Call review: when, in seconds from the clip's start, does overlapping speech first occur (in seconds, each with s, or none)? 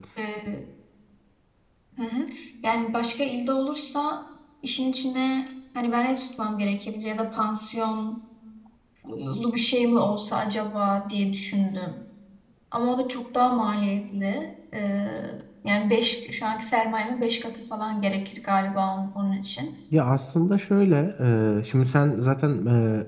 none